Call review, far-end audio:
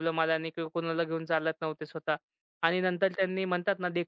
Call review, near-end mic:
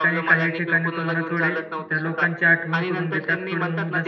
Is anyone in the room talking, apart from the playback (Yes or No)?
Yes